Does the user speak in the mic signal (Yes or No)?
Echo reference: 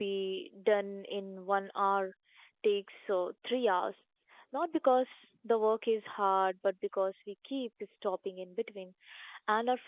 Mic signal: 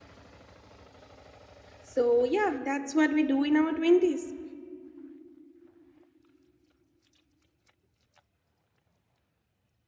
Yes